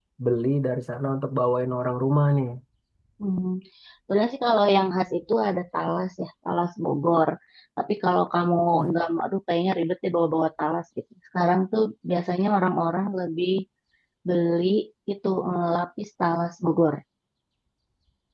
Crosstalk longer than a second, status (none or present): none